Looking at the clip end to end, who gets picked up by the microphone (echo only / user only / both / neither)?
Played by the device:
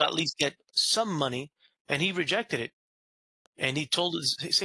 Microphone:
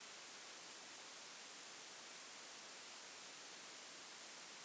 neither